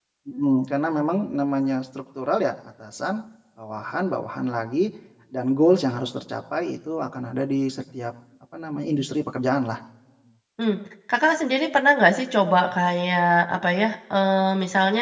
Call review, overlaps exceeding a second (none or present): none